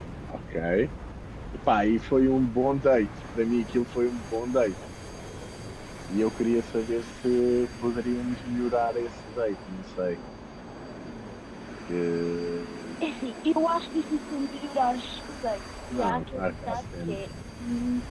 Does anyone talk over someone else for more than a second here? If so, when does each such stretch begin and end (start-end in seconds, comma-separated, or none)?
15.9-17.2